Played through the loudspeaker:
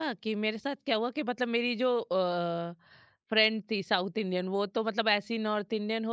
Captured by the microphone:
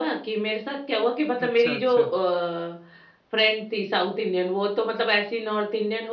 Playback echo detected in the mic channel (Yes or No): Yes